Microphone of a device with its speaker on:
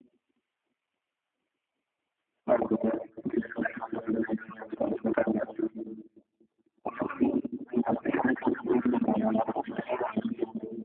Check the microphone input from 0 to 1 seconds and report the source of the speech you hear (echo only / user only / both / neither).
neither